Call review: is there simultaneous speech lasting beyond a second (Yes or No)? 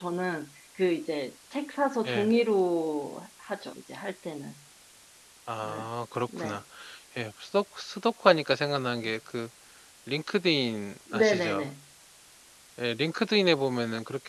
No